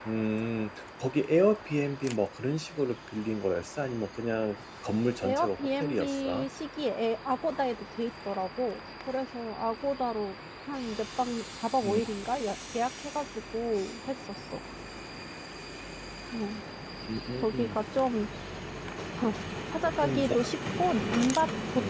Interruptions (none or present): present